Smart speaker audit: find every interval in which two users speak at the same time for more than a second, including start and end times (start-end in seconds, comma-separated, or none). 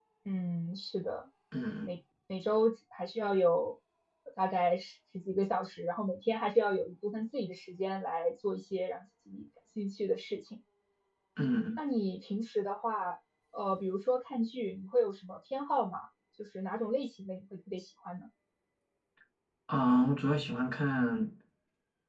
none